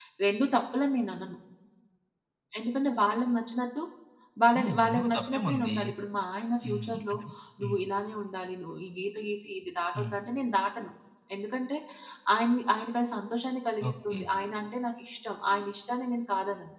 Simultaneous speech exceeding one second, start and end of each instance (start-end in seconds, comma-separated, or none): 4.6-5.8